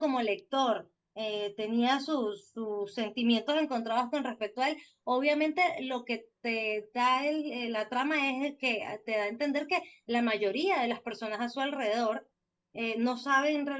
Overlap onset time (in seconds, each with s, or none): none